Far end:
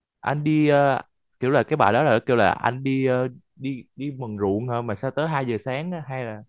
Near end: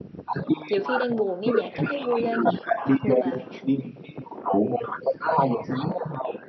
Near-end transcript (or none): nhiều khi đang buồn nghe nhạc cái thấy vui lên hoặc ngược lại